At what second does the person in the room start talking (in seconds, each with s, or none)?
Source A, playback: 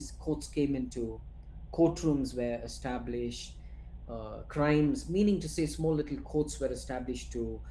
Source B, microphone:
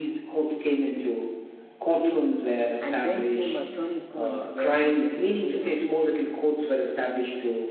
2.8 s